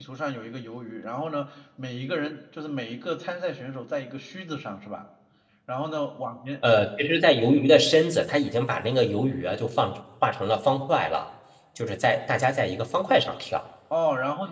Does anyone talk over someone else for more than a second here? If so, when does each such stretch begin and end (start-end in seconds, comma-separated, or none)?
none